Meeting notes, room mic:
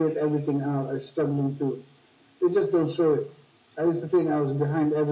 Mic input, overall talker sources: echo only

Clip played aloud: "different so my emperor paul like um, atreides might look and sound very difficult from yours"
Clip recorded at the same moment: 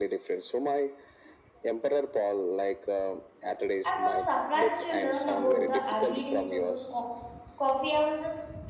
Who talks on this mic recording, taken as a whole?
both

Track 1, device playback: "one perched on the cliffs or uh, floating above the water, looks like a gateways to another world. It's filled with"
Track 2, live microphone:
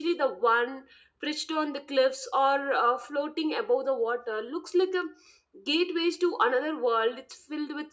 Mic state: echo only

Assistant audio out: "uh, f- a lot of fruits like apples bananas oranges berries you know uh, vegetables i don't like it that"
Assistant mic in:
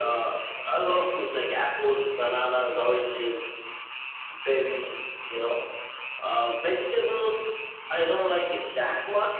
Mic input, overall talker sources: echo only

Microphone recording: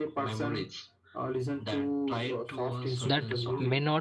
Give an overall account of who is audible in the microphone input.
both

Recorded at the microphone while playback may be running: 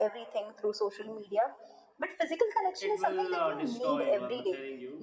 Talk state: both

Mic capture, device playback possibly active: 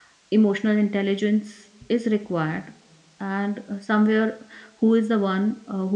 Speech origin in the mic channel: user only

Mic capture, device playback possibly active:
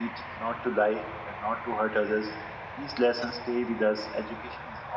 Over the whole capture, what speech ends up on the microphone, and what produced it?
user only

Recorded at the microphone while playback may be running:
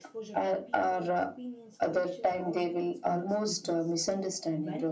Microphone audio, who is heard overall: both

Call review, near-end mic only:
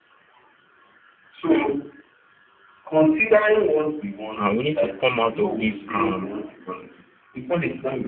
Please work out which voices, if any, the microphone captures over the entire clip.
both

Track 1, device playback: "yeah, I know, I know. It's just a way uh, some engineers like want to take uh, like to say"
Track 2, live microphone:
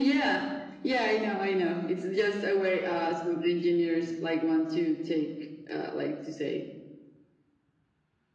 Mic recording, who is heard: echo only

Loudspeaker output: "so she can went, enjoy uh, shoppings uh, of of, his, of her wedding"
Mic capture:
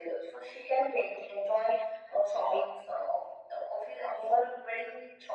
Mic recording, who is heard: echo only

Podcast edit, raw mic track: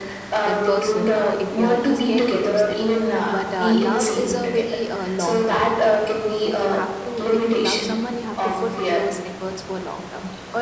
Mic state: both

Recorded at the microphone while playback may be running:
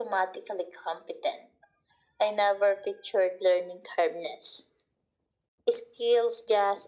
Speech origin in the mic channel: echo only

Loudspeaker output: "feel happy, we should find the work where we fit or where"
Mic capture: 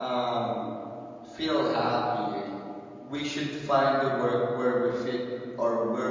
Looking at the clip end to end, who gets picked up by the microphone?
echo only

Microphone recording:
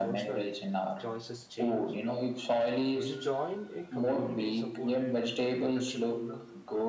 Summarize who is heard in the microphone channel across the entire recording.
both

